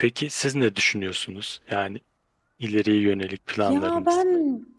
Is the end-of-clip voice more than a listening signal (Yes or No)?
Yes